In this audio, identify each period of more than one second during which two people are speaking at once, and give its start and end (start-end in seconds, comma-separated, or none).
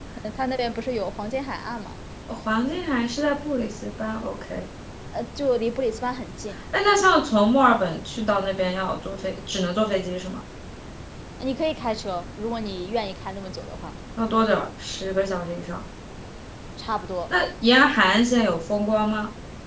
none